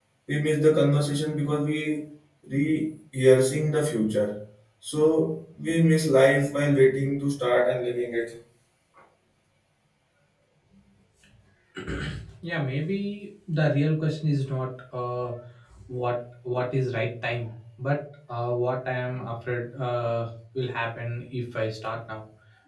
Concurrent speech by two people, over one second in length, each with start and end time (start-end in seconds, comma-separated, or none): none